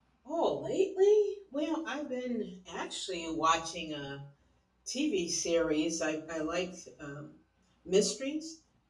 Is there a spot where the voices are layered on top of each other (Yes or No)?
No